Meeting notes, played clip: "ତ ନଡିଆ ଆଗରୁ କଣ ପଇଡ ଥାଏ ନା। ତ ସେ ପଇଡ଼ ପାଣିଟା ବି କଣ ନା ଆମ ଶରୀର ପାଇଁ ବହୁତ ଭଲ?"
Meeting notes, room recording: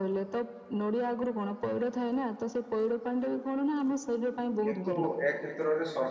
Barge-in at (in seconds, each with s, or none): 4.6 s